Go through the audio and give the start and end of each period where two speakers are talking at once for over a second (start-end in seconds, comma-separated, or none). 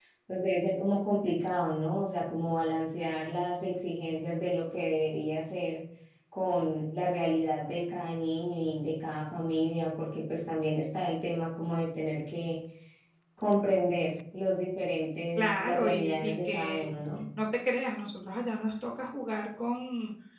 15.3-16.9